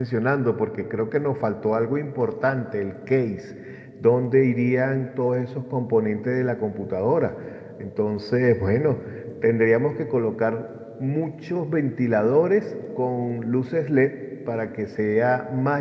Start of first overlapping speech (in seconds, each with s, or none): none